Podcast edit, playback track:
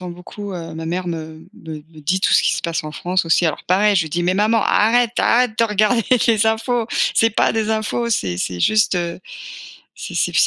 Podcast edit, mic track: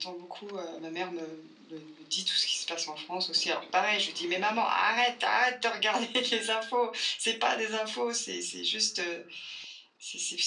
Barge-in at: none

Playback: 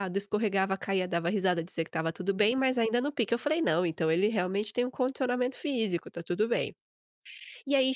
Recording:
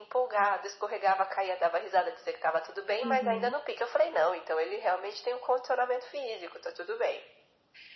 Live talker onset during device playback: 3.0 s

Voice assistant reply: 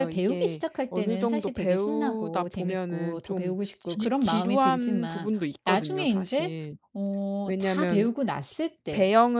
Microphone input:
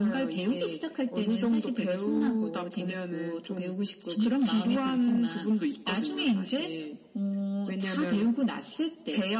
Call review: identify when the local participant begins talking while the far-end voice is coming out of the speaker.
none

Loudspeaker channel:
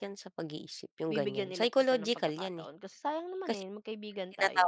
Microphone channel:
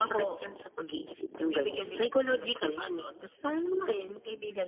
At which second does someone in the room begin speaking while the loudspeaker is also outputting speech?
none

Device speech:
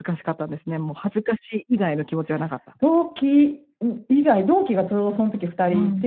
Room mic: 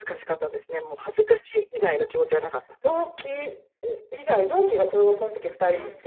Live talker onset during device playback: none

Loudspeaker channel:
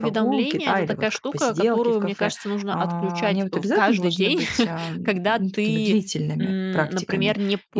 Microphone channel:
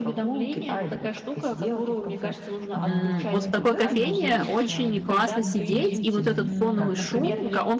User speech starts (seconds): 2.8 s

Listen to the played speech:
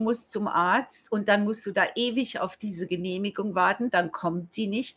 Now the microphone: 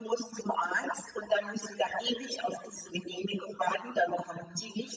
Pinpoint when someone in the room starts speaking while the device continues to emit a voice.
none

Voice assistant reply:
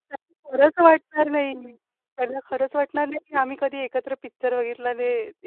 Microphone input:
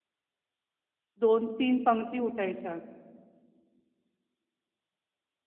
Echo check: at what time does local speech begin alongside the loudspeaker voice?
1.2 s

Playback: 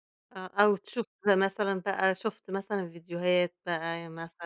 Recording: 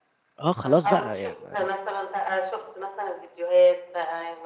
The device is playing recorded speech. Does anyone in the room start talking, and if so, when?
0.4 s

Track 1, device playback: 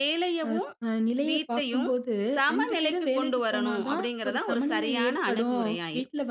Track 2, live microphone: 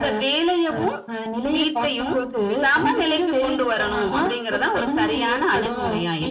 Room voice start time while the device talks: none

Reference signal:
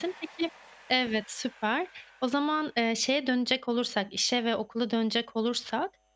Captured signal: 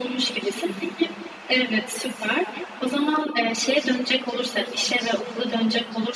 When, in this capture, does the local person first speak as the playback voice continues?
none

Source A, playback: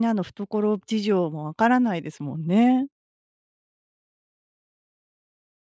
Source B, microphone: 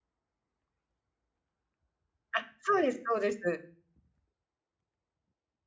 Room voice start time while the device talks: 2.3 s

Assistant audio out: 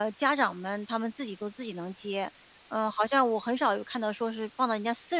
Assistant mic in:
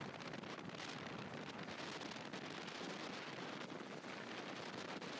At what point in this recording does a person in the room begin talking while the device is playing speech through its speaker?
none

